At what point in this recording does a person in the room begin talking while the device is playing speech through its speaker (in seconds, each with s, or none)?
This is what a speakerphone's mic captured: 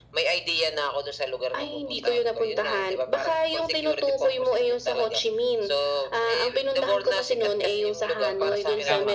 8.2 s